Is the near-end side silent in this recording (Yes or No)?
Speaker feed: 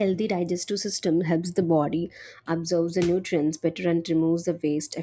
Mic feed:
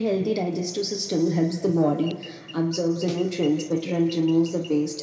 Yes